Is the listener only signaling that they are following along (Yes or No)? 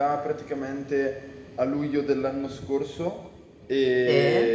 Yes